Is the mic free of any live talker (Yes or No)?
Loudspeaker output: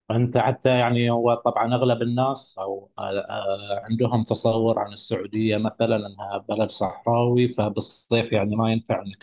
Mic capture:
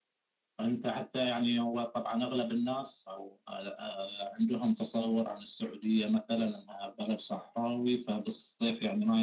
Yes